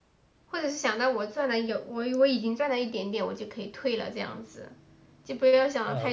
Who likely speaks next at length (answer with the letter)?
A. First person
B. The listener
B